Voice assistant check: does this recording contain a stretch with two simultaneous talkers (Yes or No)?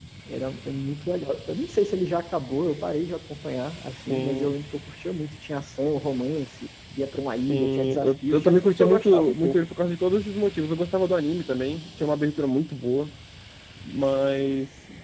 Yes